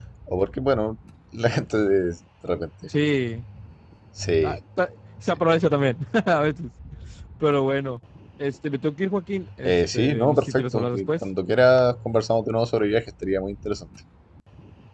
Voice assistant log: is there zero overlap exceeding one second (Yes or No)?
No